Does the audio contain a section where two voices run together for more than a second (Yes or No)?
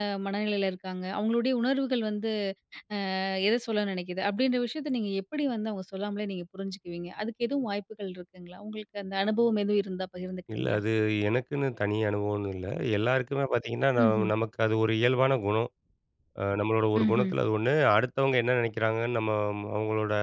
No